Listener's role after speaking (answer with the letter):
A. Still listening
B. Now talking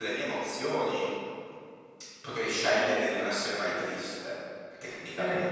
B